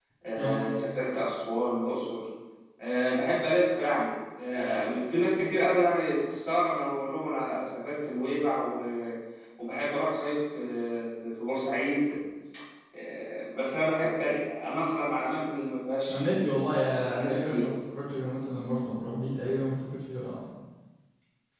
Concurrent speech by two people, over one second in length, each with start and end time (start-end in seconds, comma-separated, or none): 16.1-17.7